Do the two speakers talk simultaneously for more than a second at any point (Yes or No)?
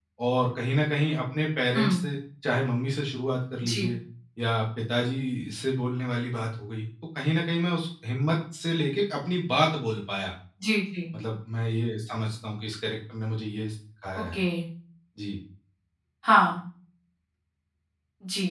No